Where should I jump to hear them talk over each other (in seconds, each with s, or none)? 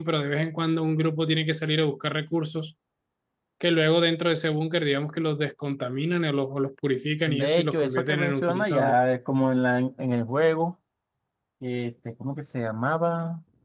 7.3 s